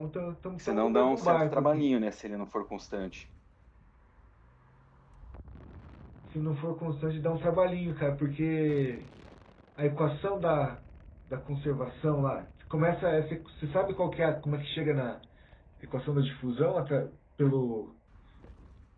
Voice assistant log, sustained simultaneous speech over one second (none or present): present